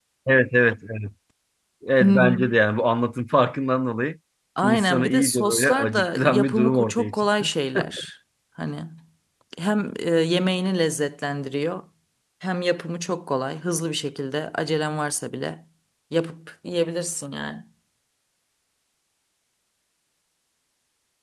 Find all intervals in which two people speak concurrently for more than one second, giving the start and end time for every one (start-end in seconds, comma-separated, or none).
4.6-7.5